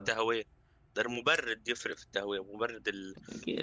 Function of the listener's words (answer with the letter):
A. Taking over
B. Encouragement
A